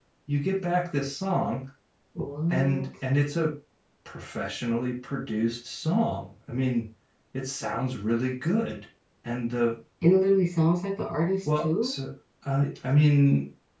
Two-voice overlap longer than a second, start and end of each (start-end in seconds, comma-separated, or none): none